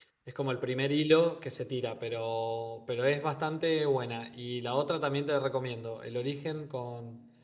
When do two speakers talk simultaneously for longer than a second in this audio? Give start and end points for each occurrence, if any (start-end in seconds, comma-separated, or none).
none